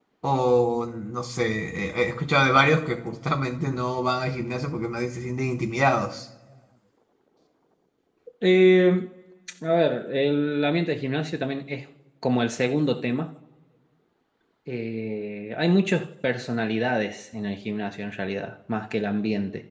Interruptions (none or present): none